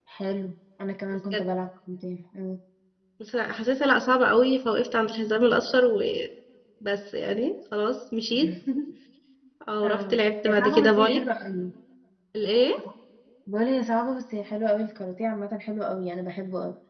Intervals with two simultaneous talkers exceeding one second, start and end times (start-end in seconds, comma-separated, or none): 9.8-11.2